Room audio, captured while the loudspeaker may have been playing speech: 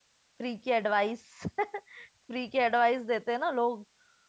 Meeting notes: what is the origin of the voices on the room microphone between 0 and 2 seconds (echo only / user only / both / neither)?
user only